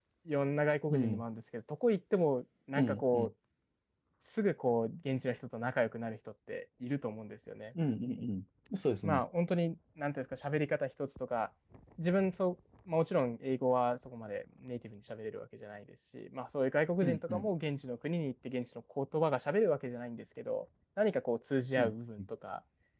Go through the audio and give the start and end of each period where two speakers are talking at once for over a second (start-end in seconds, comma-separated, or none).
none